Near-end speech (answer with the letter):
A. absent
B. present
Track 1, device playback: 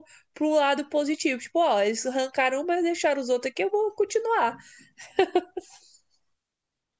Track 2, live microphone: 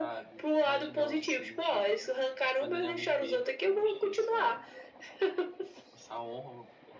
B